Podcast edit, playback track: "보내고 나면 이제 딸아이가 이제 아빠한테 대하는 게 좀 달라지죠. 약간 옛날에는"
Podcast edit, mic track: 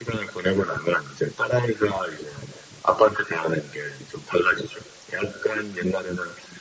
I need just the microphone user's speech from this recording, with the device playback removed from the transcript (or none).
none